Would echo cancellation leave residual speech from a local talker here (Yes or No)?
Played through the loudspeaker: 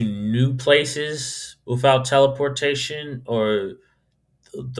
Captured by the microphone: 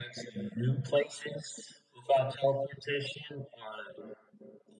No